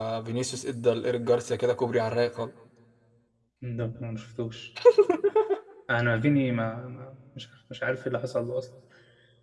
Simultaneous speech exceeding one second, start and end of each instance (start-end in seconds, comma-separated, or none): none